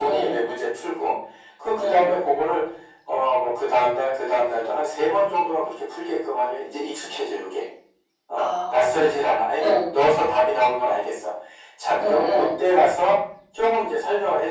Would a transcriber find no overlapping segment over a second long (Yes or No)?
No